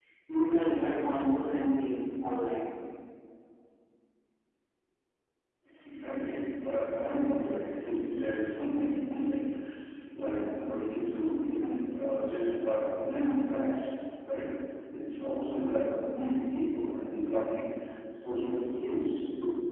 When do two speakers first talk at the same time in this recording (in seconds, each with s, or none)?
none